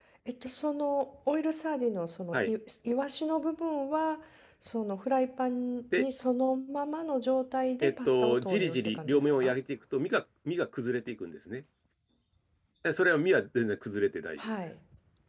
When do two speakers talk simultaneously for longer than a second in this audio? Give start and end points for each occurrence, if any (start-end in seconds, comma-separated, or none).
7.8-9.5